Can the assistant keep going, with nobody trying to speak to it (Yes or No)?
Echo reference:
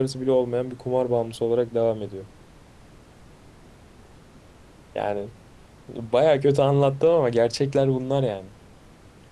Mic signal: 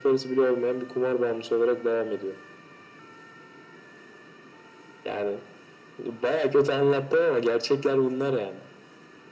Yes